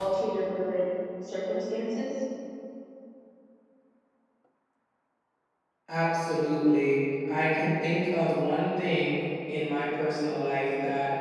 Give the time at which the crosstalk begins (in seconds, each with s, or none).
none